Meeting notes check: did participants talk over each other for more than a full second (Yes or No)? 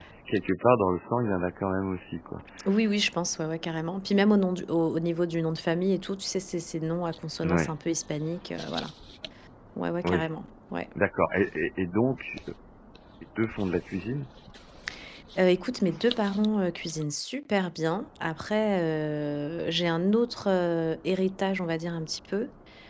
No